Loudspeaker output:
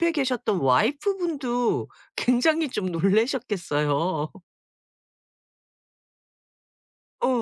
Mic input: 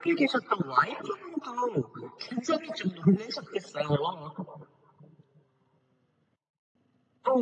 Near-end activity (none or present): none